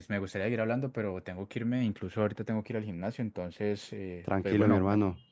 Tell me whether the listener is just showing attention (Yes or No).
No